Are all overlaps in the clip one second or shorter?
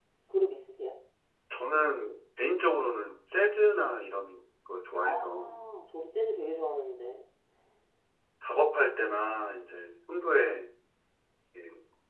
Yes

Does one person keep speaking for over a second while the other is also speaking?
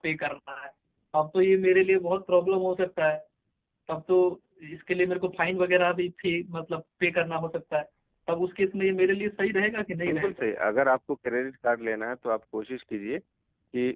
No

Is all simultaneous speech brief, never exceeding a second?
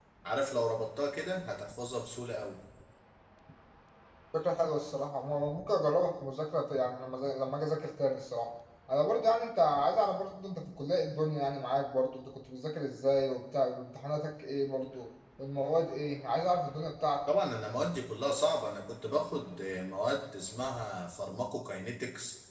Yes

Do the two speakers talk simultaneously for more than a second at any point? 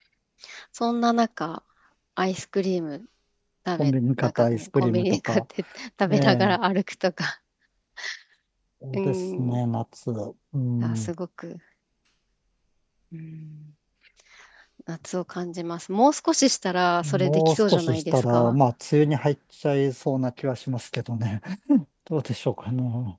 Yes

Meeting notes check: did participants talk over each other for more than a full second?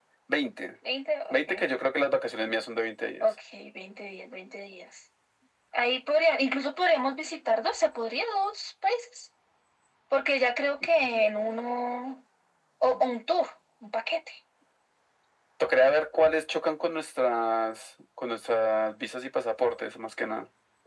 No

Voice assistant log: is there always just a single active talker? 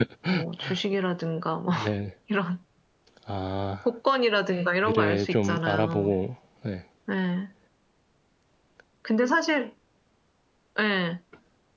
No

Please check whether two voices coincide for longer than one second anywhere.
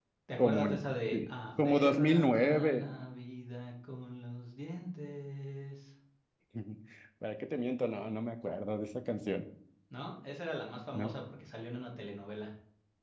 Yes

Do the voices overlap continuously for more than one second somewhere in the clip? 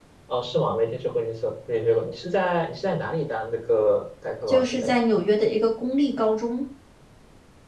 No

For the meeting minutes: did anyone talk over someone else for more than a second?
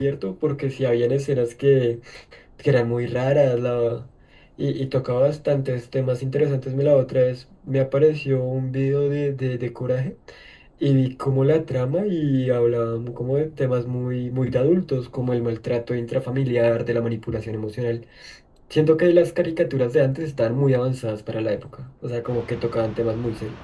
No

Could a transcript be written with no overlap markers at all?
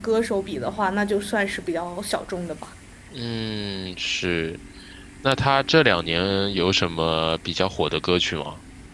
Yes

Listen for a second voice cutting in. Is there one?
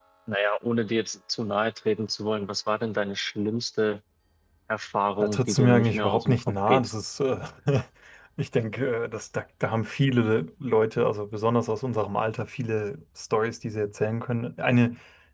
Yes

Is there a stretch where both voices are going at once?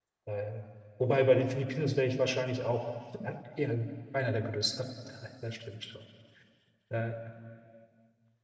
No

